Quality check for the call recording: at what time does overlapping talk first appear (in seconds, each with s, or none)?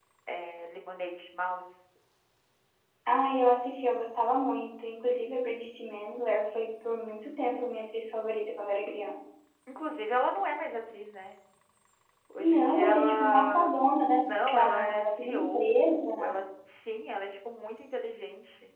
12.4 s